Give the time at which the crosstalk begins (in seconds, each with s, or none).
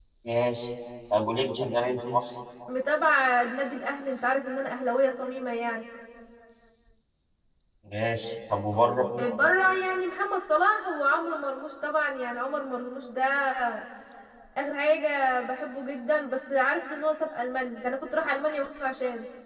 none